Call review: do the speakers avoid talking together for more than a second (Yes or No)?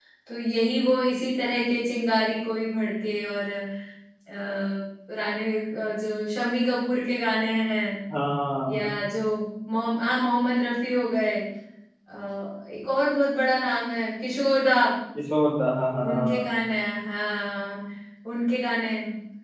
Yes